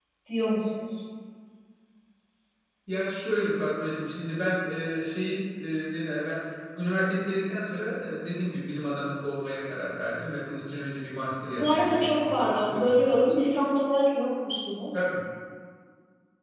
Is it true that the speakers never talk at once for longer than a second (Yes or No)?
No